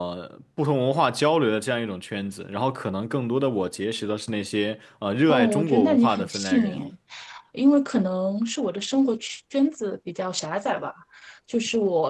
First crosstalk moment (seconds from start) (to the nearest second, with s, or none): 5 s